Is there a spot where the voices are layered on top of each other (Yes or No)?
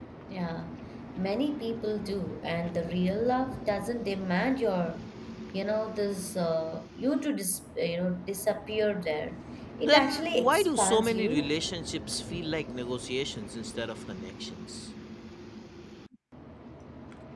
Yes